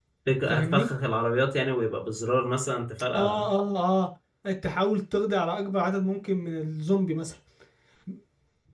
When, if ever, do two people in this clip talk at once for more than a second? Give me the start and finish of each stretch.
none

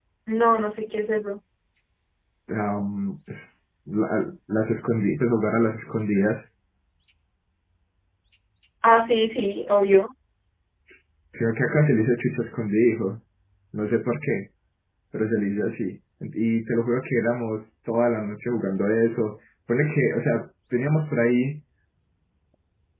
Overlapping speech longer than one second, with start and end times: none

